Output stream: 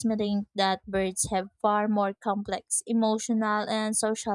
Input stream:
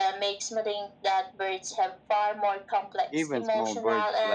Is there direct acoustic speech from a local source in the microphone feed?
Yes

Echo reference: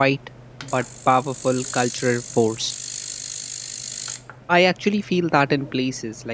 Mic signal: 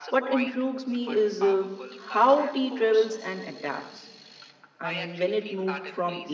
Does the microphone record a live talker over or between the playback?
Yes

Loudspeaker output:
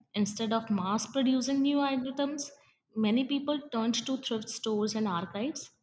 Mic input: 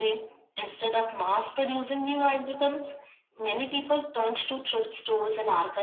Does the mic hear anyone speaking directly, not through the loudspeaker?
No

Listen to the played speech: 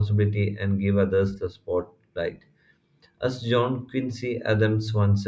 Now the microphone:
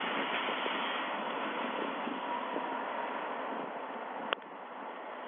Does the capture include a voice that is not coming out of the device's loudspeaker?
No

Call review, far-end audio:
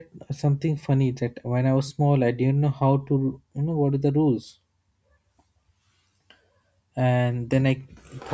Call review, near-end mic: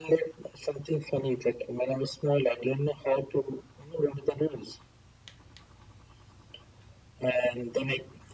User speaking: No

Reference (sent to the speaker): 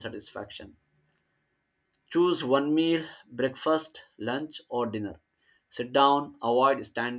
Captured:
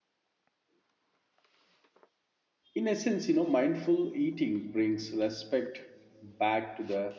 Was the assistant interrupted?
Yes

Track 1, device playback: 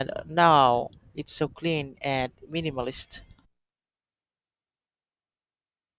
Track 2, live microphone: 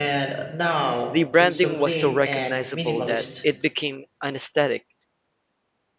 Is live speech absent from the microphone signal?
No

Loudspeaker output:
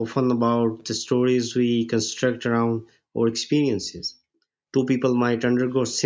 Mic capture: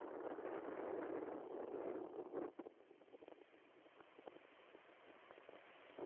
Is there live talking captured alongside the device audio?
No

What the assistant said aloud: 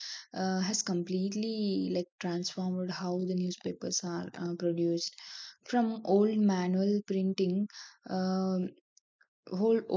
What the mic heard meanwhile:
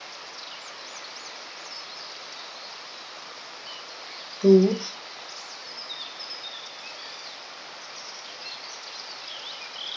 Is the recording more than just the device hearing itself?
Yes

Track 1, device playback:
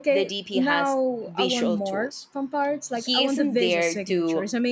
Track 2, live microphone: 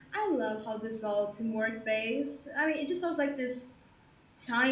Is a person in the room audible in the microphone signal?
Yes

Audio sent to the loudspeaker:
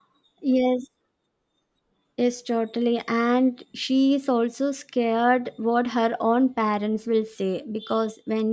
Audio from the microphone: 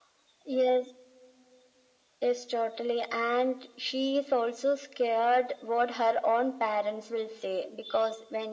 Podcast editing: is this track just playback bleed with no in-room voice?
Yes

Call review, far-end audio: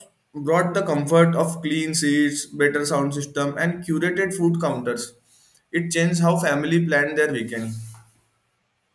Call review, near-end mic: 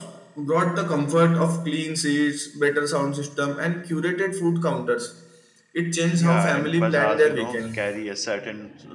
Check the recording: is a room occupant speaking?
Yes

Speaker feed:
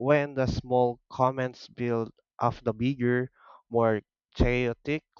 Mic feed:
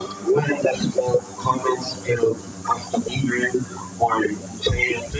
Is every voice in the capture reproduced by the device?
Yes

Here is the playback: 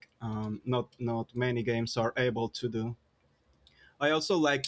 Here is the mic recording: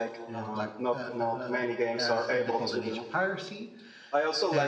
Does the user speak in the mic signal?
Yes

